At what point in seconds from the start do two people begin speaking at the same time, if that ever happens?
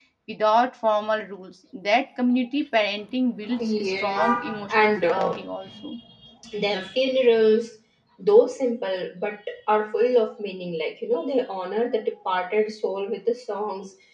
4 s

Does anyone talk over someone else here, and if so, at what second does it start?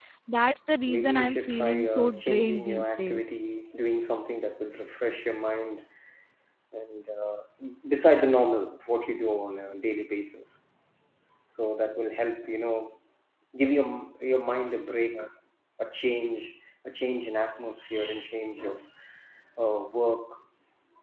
1 s

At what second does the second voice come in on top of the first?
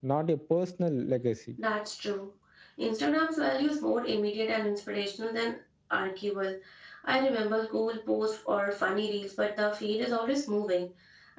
none

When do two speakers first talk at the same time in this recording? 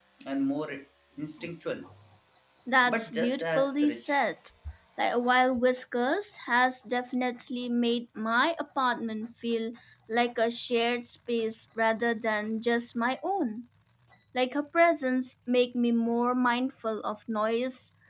3 s

